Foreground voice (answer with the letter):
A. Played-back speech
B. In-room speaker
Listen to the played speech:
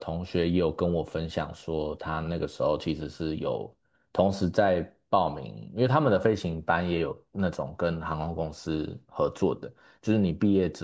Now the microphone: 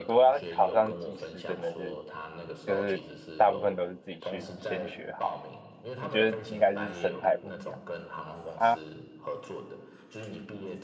B